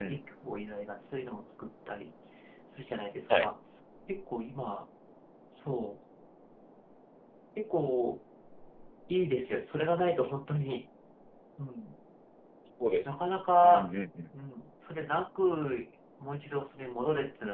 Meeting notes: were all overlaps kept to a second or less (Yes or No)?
Yes